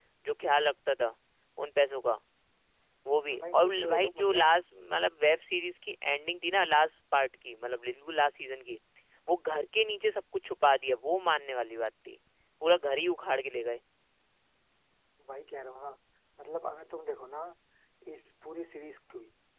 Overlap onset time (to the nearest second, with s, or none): 3 s